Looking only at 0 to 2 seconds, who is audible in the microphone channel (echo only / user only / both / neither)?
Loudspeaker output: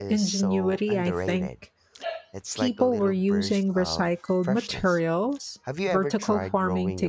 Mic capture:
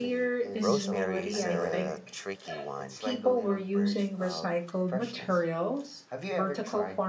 both